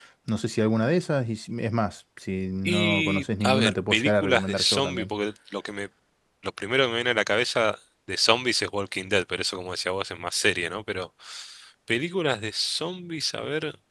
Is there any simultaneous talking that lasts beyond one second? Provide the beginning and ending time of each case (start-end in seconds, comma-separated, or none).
2.6-5.0